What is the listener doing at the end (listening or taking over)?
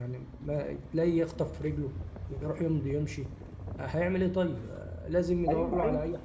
taking over